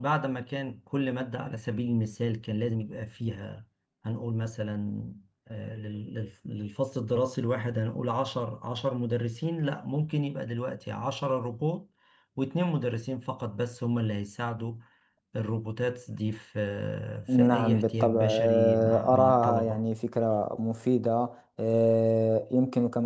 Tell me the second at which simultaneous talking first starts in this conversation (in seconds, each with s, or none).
17.3 s